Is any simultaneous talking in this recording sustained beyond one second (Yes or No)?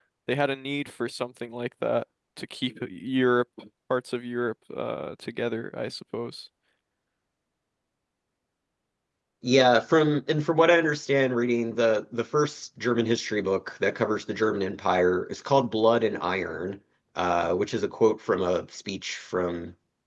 No